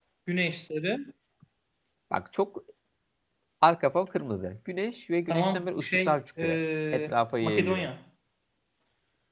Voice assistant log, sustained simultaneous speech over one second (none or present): present